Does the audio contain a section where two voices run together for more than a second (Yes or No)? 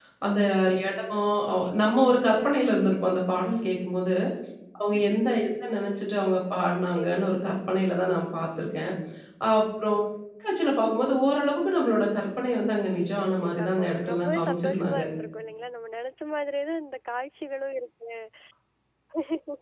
Yes